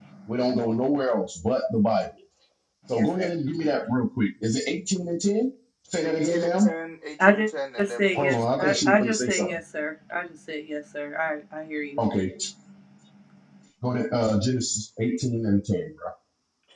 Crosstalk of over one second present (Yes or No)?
Yes